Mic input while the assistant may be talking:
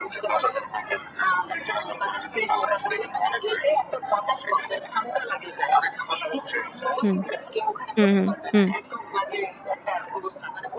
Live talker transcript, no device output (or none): হুম, হুম, হুম, হুম,